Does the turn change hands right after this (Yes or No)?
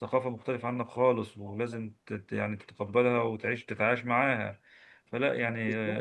No